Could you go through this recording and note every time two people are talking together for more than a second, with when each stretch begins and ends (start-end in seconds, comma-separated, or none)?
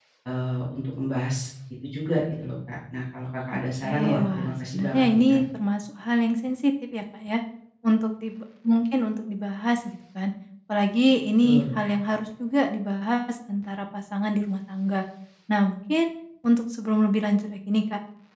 3.8-5.4